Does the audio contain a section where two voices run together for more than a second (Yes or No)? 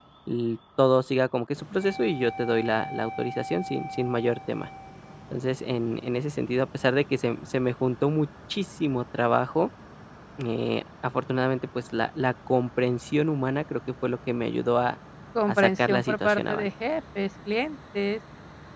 Yes